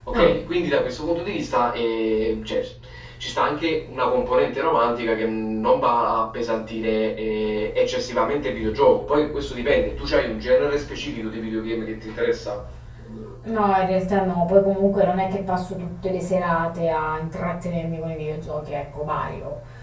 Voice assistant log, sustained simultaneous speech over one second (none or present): none